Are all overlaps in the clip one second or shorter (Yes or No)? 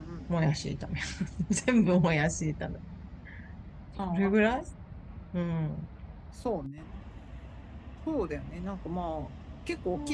Yes